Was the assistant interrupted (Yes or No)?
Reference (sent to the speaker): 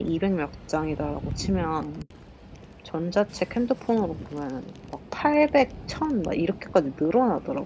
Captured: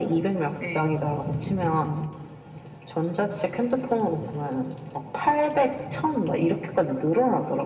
Yes